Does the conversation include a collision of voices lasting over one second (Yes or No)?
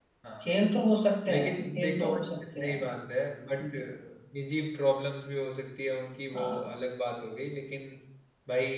Yes